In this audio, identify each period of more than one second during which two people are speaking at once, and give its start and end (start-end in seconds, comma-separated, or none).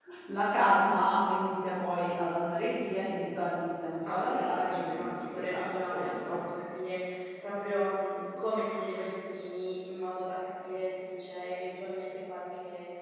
4.1-6.4